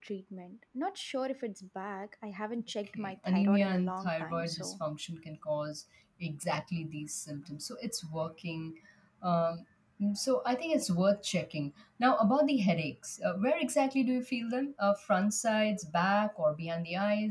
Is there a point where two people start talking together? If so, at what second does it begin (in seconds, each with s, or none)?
3.0 s